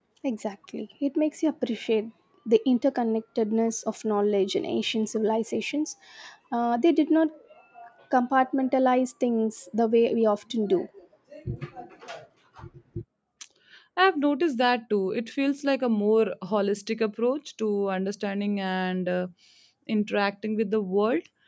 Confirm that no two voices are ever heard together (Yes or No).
Yes